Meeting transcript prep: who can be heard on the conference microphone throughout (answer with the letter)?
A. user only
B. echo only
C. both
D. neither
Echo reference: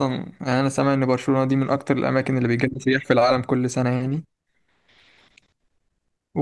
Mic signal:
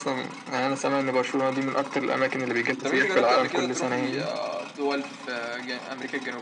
C